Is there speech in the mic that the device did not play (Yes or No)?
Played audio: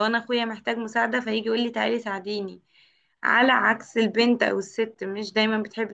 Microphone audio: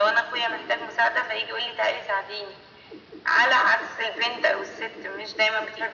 No